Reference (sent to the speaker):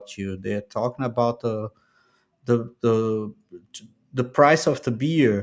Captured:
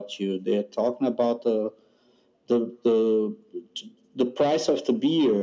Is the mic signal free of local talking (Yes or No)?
Yes